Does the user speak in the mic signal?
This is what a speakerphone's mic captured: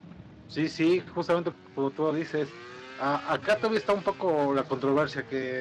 Yes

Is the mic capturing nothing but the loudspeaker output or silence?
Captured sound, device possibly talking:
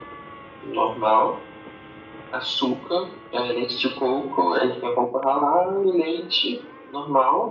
Yes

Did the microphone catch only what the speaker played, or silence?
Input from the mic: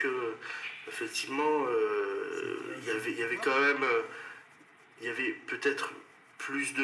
No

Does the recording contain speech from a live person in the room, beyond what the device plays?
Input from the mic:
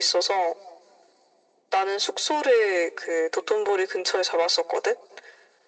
No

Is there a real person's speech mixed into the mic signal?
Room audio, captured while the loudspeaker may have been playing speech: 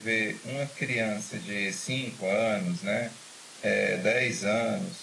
No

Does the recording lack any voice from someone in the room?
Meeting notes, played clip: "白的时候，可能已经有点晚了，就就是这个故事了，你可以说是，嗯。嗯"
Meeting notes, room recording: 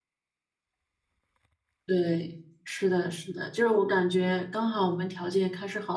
No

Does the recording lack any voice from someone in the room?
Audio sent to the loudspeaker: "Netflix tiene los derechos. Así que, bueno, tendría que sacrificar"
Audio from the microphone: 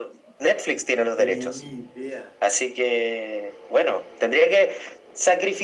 No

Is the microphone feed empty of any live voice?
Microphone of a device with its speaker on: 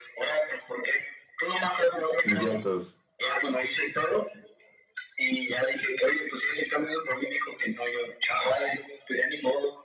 No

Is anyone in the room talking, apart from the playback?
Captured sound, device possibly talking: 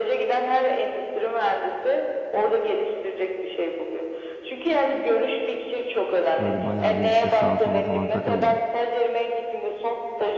Yes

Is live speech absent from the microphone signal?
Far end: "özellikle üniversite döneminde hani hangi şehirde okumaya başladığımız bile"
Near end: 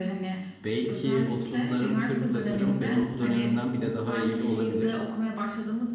No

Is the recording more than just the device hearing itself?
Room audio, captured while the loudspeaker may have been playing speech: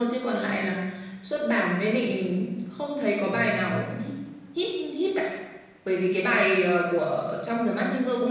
Yes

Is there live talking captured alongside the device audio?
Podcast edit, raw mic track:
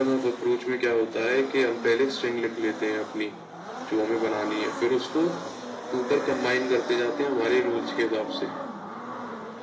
No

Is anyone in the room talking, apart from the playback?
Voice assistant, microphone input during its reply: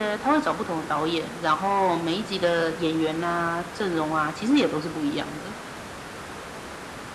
No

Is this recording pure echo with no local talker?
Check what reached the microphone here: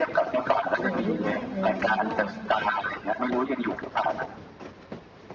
No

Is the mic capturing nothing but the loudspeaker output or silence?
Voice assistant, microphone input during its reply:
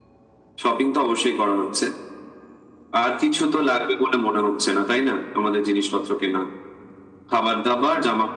Yes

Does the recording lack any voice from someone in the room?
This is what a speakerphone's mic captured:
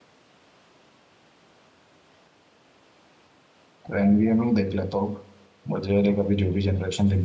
No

